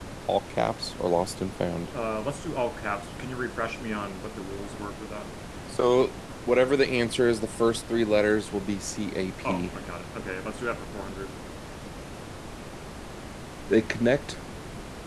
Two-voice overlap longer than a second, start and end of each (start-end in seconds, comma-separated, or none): none